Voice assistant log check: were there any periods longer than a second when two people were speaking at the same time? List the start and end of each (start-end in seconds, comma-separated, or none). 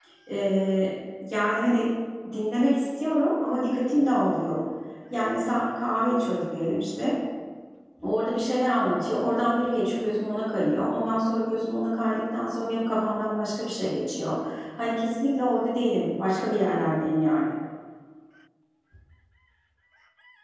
none